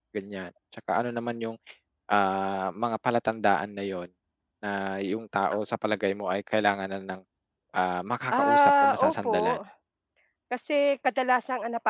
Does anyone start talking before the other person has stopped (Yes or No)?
Yes